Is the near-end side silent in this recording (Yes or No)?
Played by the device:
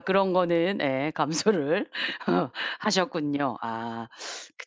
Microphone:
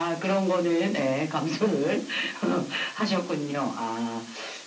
Yes